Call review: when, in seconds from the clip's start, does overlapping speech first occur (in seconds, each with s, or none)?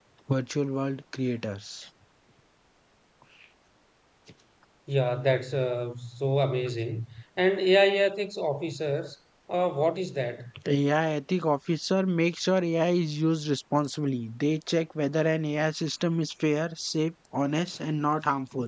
none